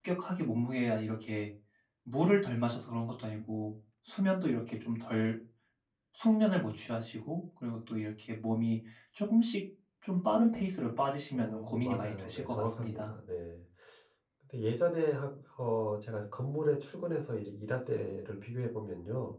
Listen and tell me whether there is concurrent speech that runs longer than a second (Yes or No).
Yes